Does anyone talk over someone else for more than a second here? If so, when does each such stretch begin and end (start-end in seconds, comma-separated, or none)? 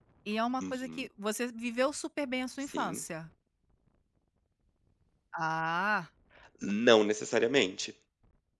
none